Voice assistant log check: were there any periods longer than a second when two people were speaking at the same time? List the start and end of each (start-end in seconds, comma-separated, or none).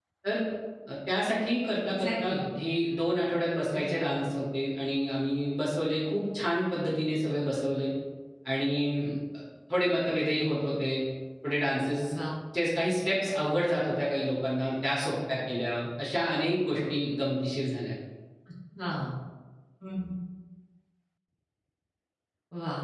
none